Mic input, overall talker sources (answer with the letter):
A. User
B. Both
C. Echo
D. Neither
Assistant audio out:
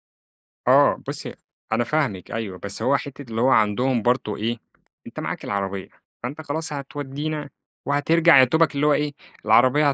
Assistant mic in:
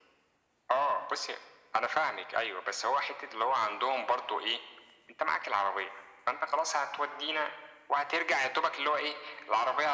C